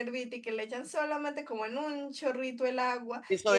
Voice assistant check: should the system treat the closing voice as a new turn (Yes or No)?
Yes